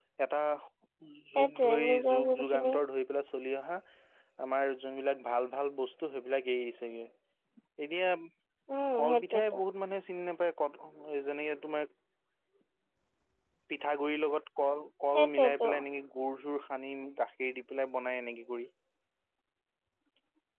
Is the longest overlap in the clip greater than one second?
Yes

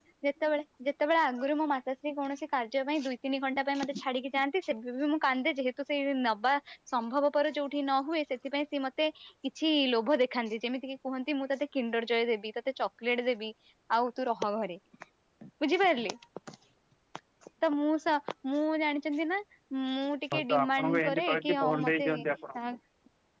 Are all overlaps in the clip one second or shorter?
No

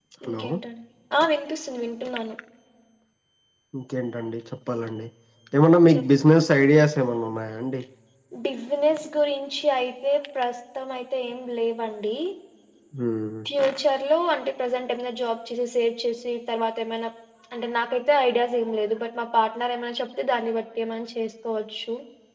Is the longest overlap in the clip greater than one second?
No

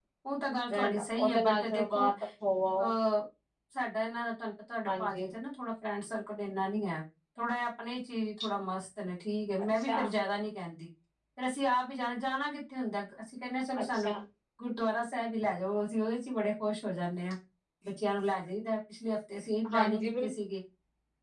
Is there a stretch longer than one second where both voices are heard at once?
Yes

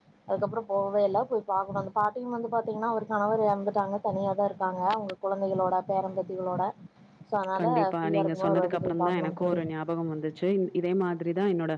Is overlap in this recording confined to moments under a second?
No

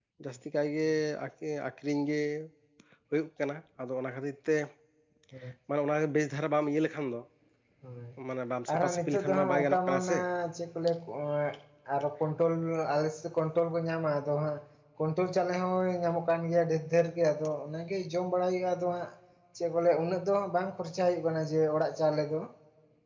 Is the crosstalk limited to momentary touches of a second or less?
No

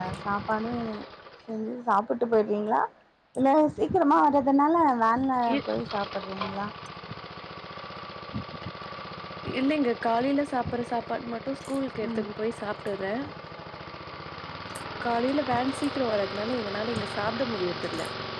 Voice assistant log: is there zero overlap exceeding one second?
Yes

